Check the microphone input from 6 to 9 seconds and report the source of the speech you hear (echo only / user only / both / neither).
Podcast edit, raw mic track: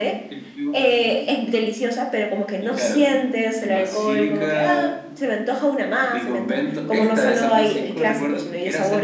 echo only